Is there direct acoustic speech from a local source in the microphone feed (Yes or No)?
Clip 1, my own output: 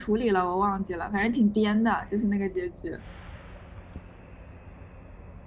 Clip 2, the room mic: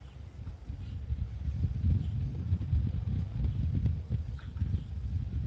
No